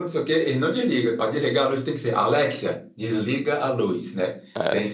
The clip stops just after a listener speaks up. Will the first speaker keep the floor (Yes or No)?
Yes